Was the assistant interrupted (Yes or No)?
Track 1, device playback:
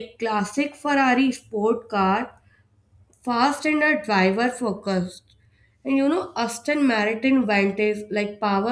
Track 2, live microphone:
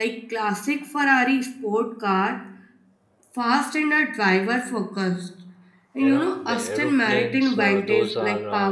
Yes